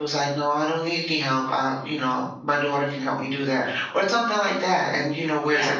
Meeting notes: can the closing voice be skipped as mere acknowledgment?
Yes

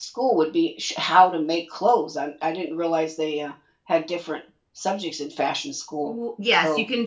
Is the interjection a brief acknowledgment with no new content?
No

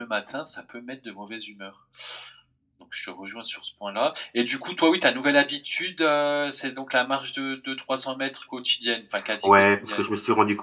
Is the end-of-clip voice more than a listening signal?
Yes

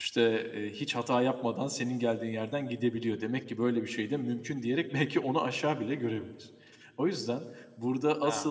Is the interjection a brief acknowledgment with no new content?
Yes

